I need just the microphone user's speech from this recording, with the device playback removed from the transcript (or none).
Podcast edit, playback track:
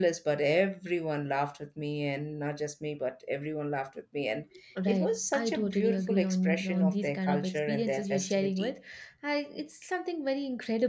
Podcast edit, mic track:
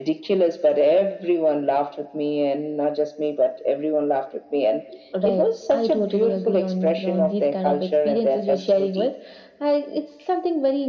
none